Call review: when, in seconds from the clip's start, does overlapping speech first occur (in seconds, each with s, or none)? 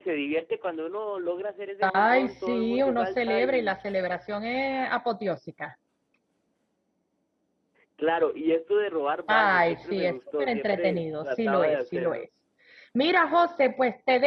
1.8 s